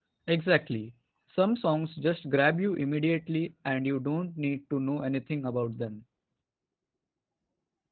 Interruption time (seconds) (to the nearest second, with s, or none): none